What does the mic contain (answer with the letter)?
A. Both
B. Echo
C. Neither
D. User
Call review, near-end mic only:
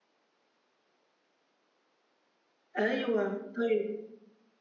D